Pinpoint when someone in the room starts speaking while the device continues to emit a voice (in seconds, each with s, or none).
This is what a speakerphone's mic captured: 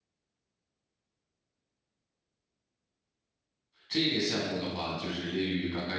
3.9 s